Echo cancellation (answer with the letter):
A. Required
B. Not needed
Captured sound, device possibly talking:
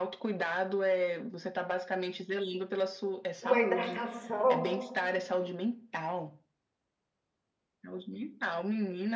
A